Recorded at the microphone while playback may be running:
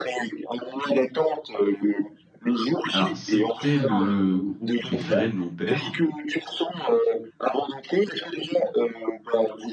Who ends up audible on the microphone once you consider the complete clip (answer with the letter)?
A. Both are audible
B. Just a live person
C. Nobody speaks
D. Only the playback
A